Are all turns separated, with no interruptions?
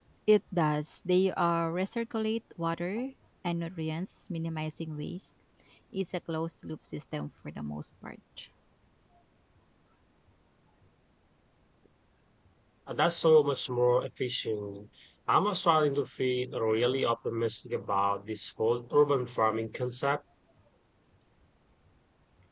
Yes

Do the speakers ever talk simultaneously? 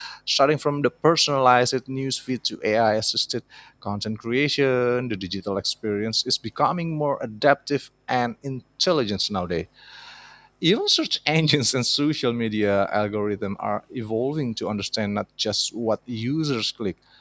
No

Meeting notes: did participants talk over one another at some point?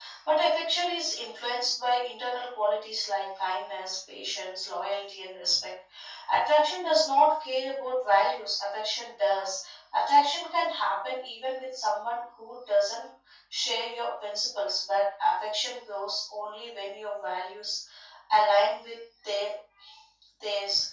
No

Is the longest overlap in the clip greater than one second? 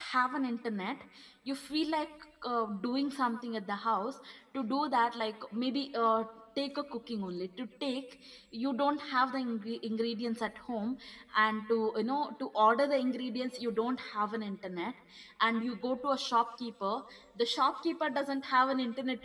No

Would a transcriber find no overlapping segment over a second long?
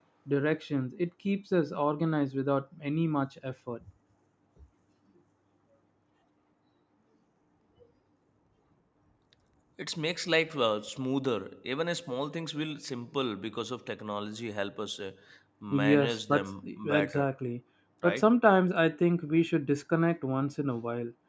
No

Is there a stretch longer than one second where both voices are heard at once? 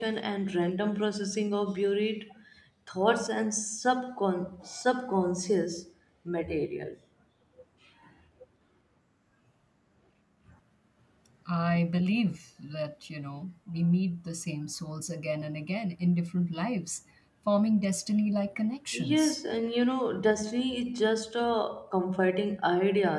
No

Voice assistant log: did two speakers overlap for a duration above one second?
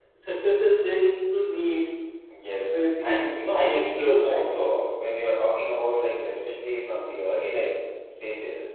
Yes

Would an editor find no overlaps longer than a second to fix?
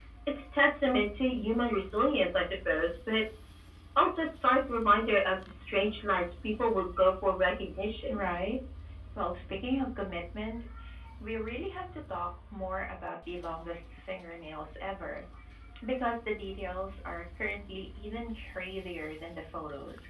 Yes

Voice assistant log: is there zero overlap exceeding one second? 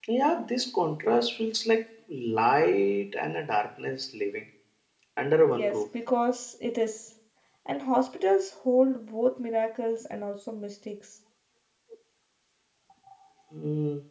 Yes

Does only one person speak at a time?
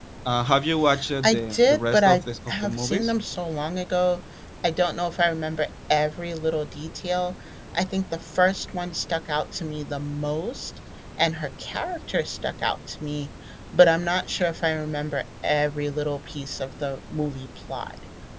No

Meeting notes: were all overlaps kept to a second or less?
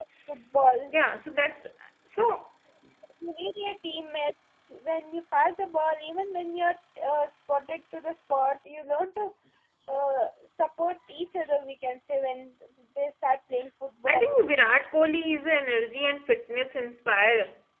Yes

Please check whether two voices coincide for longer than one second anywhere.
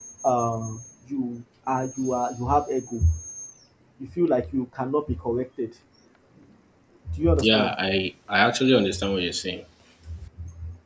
No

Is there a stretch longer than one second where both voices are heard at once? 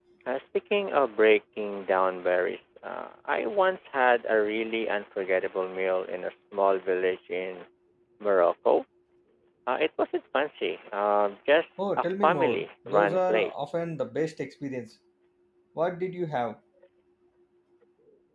Yes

